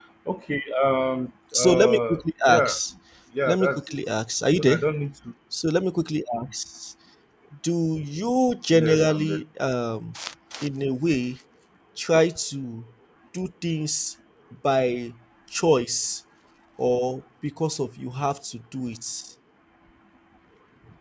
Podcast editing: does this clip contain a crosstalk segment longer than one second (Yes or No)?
Yes